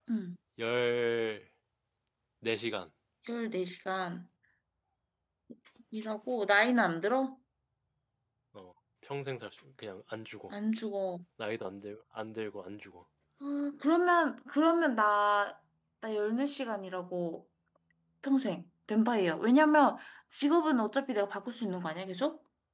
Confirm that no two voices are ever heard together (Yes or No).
Yes